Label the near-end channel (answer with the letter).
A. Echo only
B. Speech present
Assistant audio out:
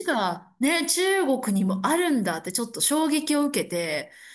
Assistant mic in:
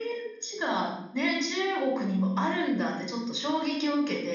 A